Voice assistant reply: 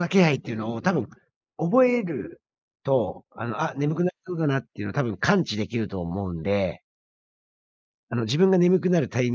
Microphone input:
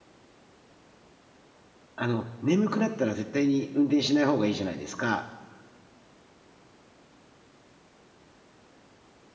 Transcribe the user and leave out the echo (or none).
あの、眠くなったら絶対に運転しない方がいいじゃないですか。